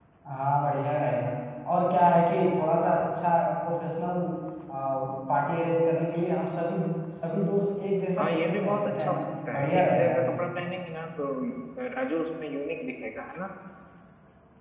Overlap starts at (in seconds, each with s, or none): 8.2 s